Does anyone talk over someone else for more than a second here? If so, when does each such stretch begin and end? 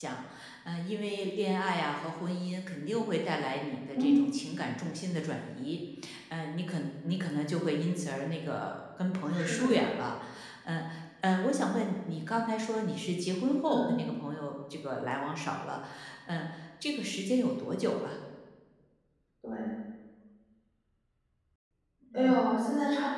none

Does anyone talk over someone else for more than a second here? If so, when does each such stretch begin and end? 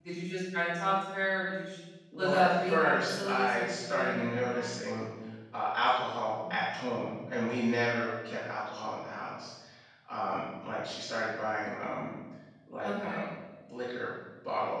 2.2-4.7

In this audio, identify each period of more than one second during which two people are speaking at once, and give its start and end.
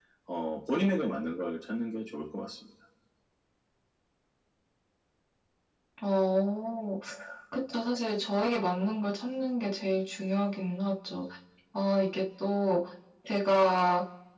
none

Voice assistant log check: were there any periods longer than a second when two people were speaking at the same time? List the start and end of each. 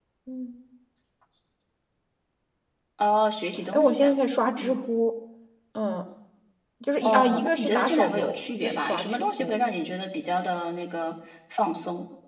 7.0-9.5

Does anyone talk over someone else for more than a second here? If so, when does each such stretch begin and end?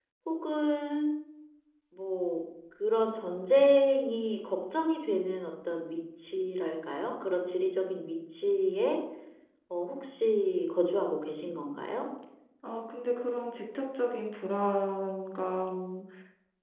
none

